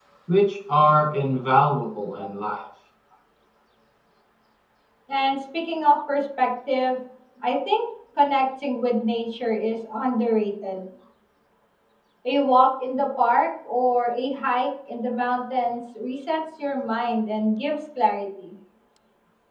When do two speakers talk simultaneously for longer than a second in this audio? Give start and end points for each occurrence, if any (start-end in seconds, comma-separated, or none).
none